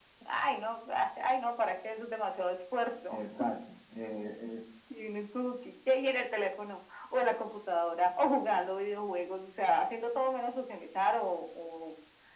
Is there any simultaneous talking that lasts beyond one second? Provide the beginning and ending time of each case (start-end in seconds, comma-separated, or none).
none